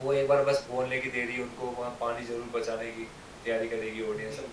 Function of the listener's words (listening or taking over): taking over